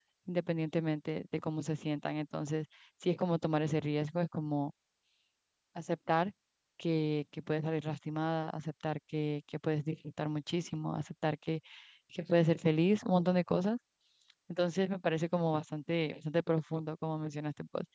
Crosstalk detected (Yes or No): No